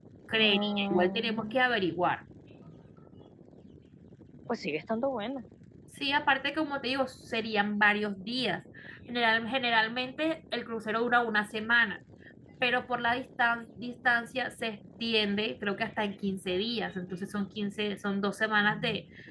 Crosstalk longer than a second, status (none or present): present